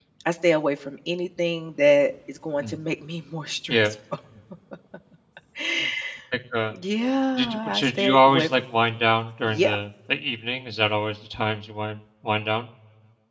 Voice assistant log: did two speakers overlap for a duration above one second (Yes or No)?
Yes